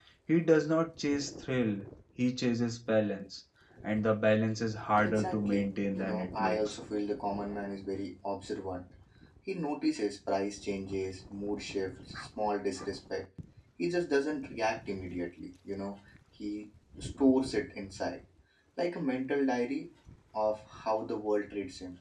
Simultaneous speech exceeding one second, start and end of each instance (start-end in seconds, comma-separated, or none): 5.0-6.8